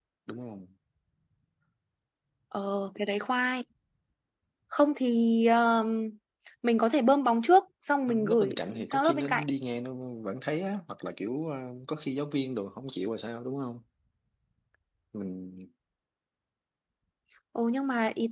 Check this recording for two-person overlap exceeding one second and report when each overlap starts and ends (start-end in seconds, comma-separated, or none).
8.1-9.4